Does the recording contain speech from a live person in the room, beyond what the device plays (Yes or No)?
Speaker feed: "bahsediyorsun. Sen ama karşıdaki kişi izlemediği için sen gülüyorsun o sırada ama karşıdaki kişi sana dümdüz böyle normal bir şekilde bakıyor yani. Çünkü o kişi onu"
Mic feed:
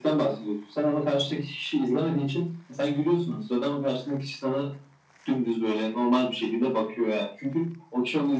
No